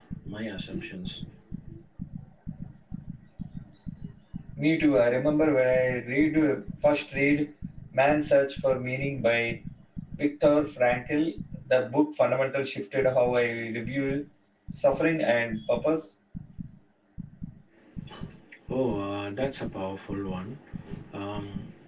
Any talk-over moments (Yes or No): No